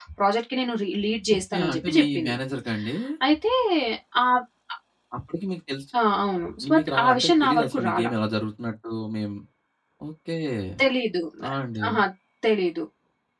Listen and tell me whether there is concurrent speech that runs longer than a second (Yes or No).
Yes